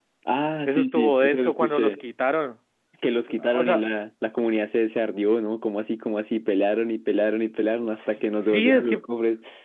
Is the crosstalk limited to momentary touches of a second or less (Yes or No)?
No